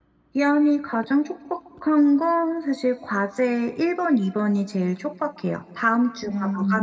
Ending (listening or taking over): listening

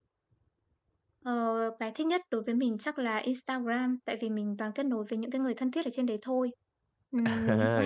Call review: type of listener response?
taking over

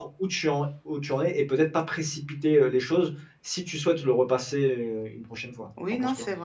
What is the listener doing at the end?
taking over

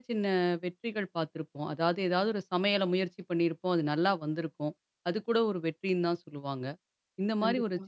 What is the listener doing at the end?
listening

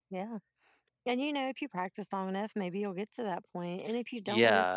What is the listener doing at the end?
taking over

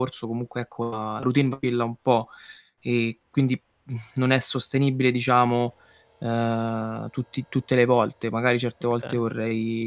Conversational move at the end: listening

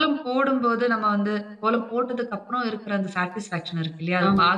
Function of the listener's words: listening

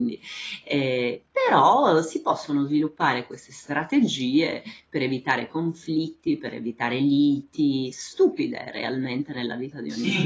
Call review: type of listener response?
taking over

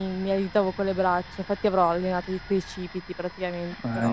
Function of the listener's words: taking over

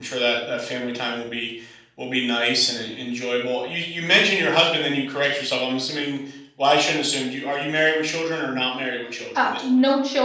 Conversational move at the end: taking over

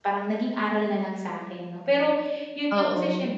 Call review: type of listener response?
listening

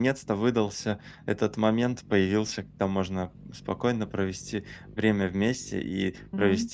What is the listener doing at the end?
listening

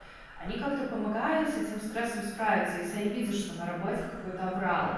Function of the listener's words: listening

